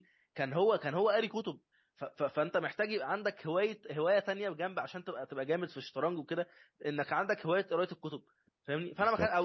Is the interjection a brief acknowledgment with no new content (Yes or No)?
Yes